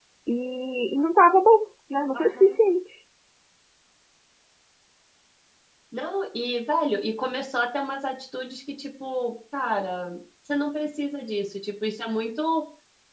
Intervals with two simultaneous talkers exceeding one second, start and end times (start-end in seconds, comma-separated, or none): none